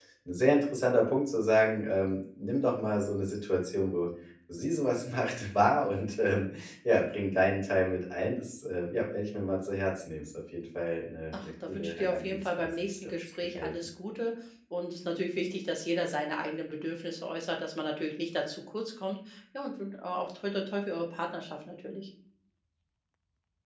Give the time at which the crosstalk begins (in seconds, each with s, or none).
11.3 s